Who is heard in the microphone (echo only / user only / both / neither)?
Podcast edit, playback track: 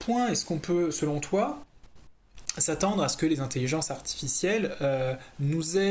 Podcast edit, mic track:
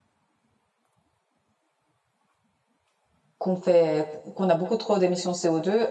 user only